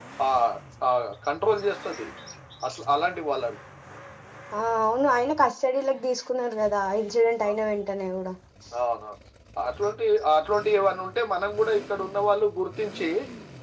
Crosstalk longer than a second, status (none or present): none